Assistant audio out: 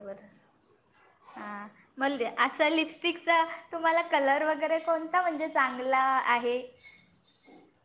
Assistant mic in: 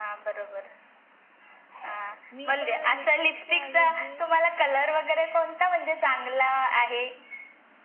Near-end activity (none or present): present